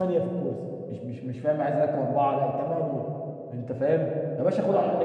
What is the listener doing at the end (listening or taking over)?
listening